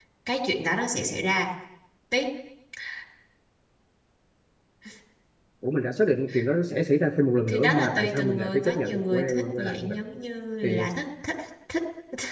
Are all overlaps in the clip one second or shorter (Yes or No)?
No